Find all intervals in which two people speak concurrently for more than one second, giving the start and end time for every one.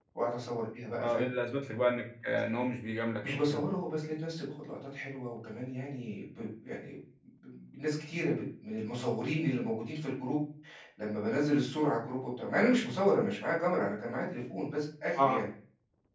none

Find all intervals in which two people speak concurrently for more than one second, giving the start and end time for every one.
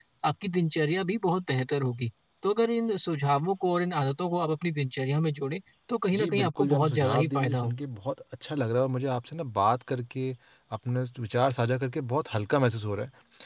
6.2-7.7

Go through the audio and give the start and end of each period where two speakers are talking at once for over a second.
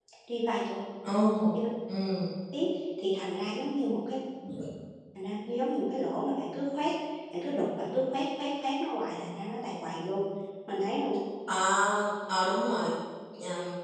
none

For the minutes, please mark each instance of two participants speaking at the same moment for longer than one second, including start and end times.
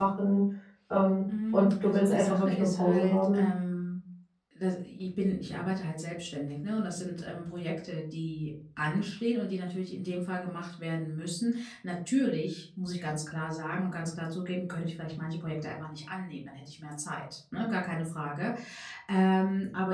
1.5-3.4

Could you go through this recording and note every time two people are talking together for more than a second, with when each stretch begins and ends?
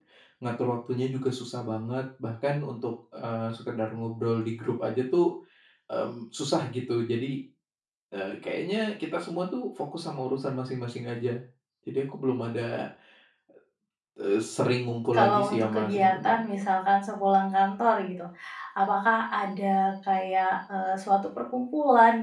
15.1-16.4

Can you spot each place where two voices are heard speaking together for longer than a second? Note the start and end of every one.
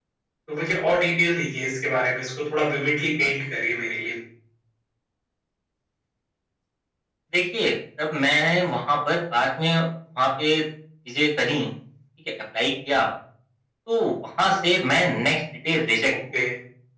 none

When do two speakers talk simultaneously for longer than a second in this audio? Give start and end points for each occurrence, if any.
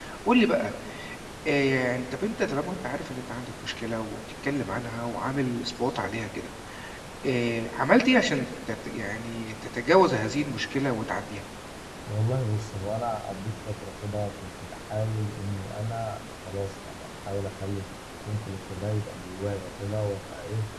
none

